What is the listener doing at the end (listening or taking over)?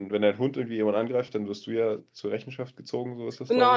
taking over